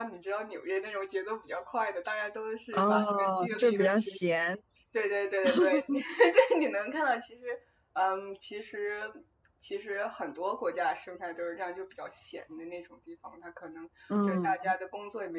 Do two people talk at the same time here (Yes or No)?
Yes